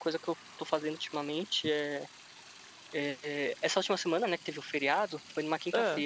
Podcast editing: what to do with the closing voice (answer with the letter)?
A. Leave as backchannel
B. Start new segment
A